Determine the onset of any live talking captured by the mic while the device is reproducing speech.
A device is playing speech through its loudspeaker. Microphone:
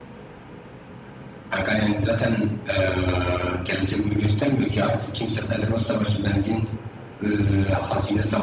none

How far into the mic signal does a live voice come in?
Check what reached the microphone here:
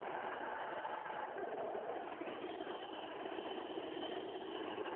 none

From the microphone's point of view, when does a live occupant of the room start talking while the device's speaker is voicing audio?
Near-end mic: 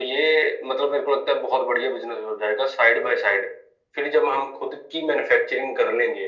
none

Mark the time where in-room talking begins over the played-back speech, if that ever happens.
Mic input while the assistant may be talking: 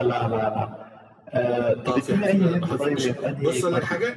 1.9 s

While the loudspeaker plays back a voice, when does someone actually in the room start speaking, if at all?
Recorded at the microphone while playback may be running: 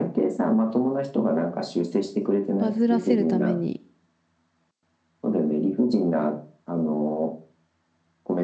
2.6 s

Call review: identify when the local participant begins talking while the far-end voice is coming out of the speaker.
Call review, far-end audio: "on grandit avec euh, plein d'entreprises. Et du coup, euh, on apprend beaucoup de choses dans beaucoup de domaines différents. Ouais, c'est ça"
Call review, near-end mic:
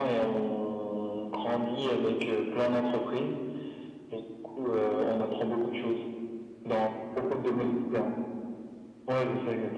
none

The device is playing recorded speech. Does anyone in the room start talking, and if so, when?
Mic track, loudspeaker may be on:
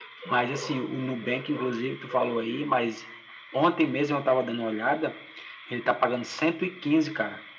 none

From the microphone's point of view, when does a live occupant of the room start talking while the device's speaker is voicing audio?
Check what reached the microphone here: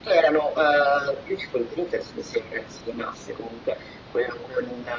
none

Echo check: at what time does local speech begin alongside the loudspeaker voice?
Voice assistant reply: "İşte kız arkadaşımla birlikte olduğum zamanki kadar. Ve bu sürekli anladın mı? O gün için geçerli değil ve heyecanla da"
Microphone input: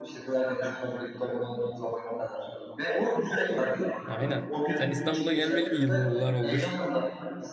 4.1 s

